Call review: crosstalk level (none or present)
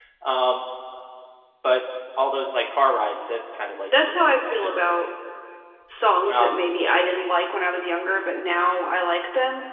present